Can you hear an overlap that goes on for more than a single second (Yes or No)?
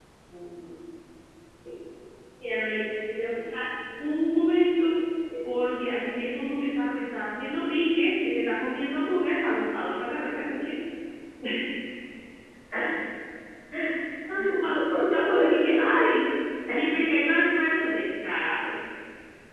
Yes